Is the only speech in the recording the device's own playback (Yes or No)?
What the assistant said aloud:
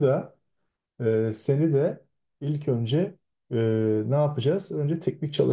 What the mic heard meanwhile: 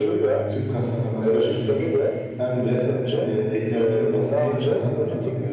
No